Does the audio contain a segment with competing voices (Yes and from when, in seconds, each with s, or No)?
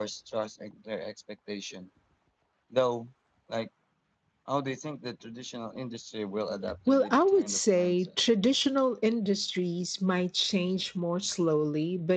Yes, from 6.7 s